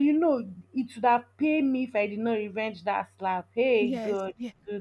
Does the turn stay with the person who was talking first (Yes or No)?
Yes